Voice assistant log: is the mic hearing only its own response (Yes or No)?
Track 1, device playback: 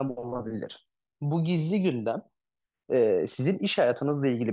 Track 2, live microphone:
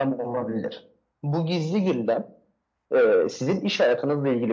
Yes